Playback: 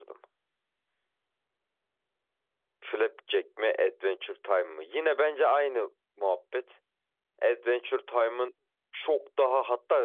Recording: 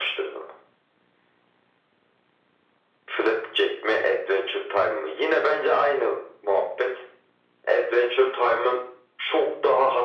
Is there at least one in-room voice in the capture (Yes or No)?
No